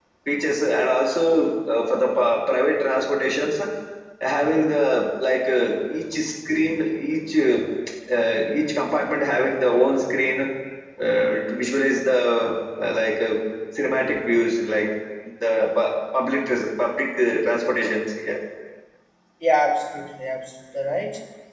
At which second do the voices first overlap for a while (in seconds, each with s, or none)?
none